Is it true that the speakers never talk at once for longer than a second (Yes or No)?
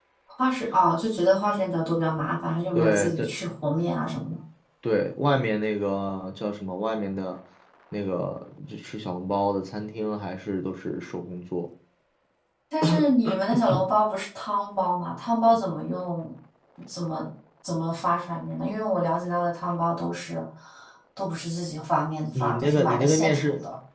No